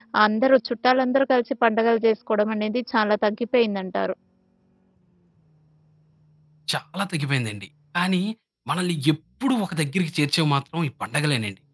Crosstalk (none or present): none